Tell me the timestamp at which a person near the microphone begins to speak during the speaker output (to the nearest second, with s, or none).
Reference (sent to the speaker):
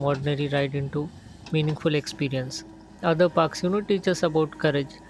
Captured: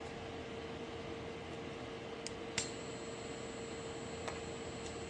none